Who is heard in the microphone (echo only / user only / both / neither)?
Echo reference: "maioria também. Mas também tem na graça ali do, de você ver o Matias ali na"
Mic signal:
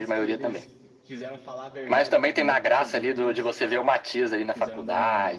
both